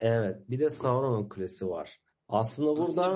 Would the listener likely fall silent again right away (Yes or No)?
No